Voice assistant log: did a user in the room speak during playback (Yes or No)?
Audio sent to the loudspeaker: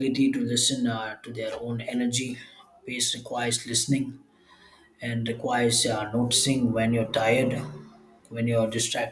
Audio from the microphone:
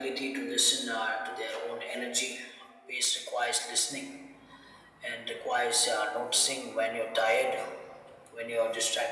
No